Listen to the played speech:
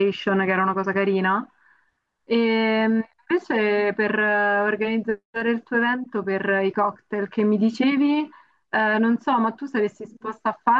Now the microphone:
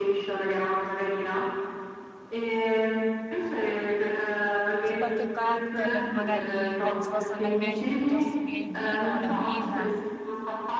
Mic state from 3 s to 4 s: echo only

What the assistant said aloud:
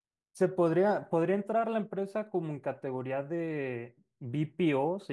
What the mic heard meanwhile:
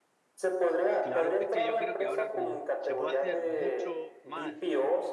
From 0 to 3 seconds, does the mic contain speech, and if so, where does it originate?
both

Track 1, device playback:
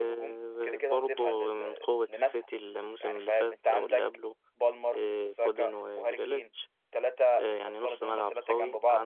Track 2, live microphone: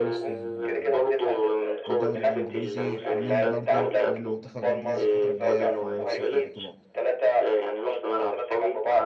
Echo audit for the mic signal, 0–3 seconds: both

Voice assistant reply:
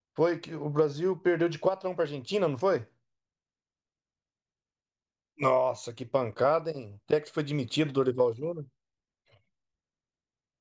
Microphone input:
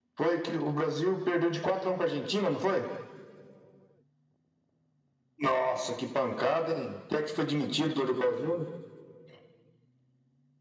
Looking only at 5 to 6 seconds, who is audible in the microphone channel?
echo only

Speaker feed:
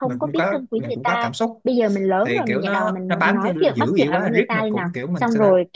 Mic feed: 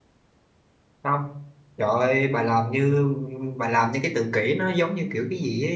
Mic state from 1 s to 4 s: user only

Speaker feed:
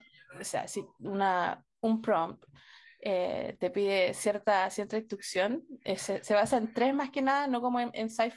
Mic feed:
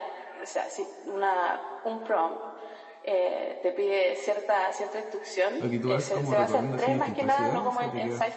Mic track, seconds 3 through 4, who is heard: echo only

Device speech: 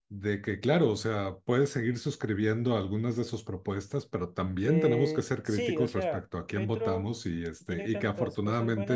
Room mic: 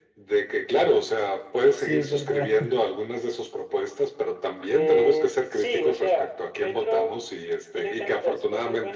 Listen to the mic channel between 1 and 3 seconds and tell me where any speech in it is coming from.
both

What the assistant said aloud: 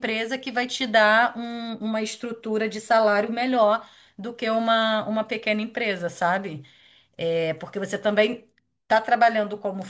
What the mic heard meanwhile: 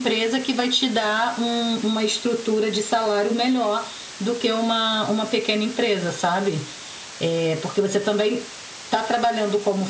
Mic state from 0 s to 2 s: echo only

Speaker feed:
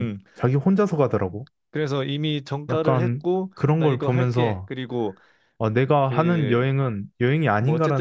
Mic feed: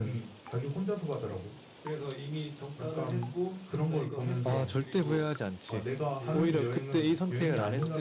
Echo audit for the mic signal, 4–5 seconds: both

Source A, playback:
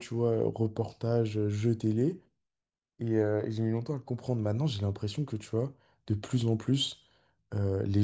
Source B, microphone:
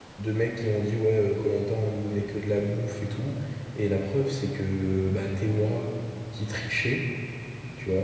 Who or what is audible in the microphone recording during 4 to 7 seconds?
user only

